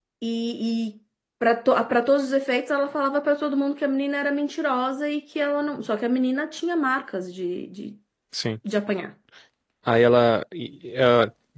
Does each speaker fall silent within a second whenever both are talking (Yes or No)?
Yes